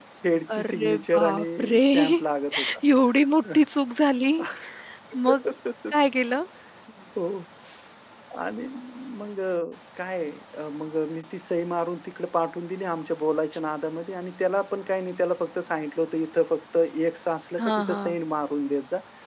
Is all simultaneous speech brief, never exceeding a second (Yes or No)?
No